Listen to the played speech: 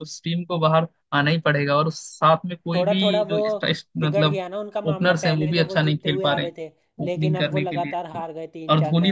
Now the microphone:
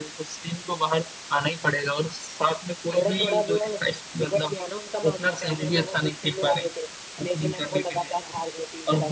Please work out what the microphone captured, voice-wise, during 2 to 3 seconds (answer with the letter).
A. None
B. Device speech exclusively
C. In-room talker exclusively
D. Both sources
B